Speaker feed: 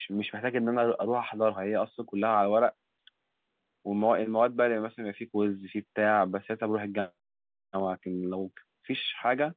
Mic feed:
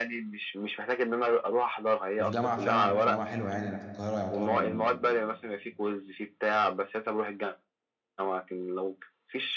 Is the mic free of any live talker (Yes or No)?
No